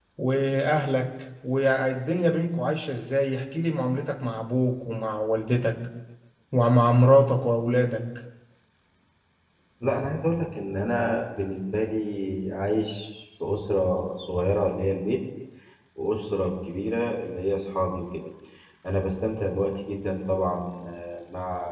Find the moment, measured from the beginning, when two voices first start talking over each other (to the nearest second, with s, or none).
none